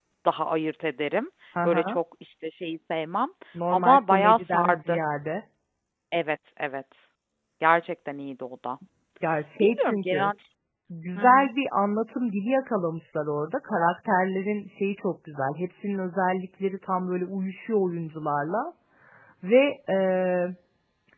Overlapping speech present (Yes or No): Yes